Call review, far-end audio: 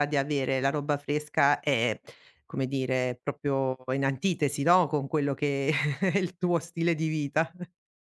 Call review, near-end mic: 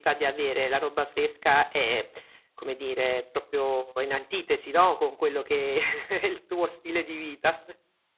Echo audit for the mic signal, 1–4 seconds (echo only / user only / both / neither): echo only